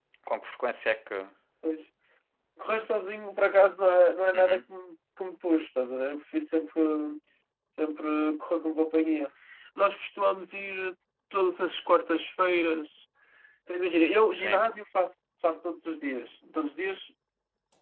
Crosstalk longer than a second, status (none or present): none